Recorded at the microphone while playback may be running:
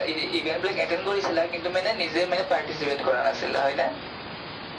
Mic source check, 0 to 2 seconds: echo only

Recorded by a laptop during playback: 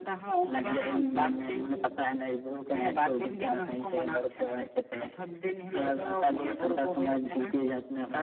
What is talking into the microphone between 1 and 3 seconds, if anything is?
echo only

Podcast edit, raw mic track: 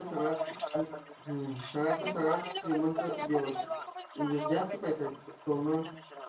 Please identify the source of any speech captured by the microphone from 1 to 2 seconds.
both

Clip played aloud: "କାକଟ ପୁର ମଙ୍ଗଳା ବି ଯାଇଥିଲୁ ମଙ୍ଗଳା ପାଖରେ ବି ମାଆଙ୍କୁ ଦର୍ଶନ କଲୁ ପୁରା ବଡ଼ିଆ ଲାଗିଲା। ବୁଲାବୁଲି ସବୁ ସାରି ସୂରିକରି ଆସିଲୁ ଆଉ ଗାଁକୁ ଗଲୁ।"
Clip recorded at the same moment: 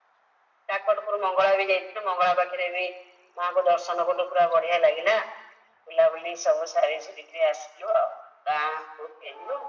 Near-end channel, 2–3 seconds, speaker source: echo only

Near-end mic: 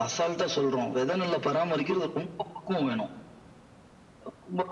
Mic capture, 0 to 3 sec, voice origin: echo only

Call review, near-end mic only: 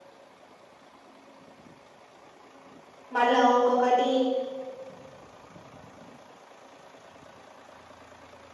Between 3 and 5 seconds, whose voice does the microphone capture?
user only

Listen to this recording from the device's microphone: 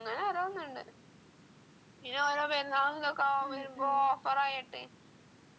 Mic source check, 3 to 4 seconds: both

